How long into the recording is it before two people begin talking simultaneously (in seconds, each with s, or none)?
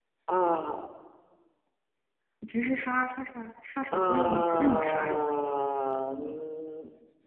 3.9 s